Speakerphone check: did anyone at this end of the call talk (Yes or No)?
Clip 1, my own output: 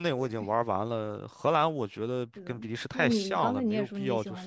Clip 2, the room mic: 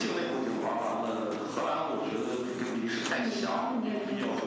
No